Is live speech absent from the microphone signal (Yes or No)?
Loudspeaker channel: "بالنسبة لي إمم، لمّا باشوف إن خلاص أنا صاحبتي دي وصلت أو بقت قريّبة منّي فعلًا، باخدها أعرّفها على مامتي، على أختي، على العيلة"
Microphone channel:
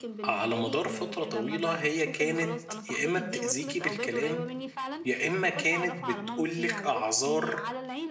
No